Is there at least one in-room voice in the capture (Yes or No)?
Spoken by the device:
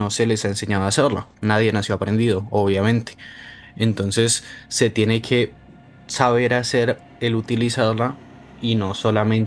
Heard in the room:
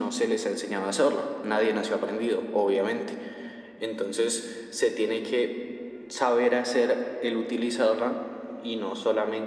No